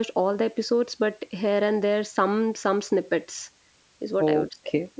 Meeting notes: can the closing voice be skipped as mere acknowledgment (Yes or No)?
No